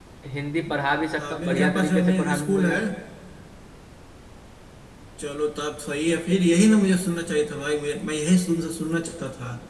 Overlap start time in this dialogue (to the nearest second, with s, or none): 1 s